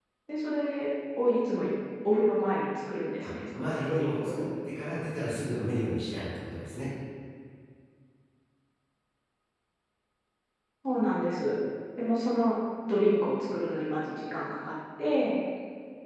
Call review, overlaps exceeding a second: present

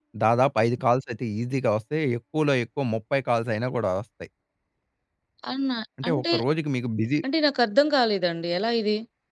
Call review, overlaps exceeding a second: none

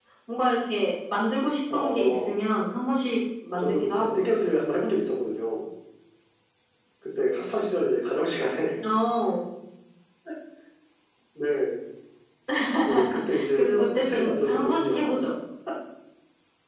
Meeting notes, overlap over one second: present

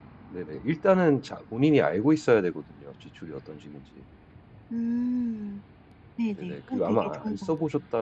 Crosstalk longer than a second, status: present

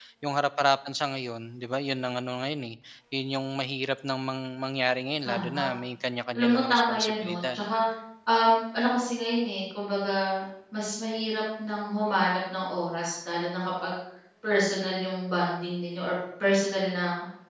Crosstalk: present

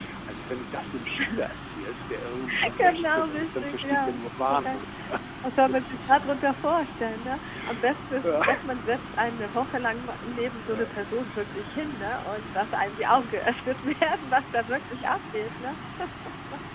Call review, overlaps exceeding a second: present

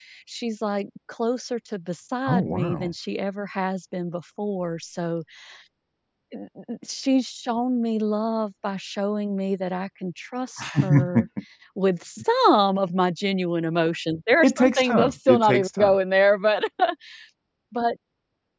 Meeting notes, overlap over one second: present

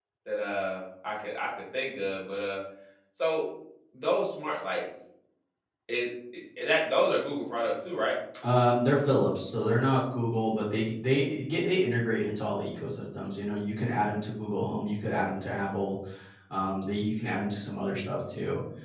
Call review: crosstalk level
none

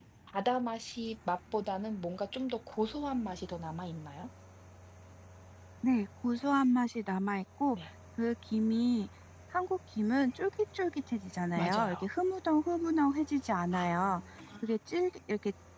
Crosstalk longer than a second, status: none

